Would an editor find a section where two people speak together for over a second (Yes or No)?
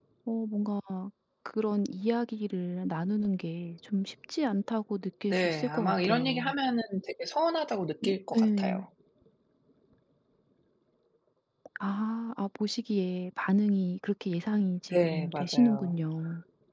Yes